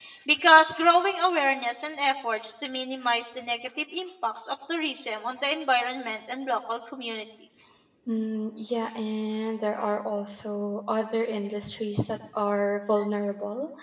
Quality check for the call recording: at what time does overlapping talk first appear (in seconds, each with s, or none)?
none